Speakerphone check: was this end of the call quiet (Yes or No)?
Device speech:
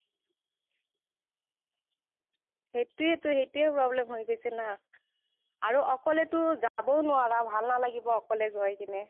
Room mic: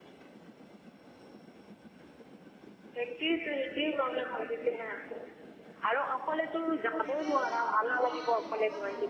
No